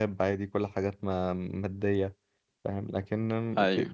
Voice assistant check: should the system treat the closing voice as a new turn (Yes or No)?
No